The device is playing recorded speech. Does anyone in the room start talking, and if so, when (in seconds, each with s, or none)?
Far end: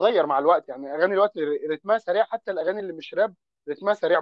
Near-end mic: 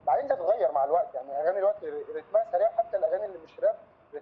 none